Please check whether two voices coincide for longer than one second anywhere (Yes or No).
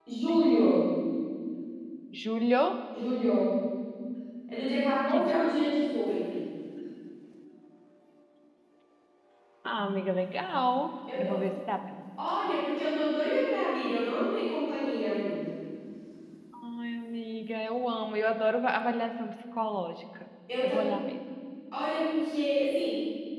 No